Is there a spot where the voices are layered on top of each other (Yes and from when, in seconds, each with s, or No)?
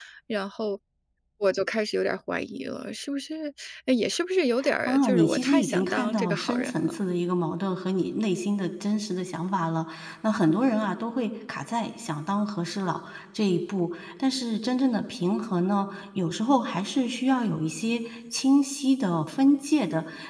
Yes, from 4.6 s